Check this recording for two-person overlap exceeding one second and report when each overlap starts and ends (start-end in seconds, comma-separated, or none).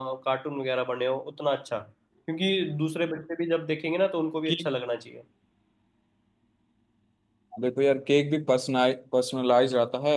none